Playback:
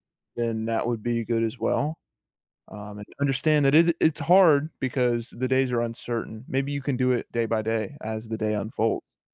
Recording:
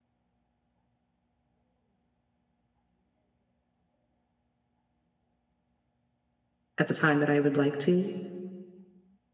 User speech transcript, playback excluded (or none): at the time that I would like to.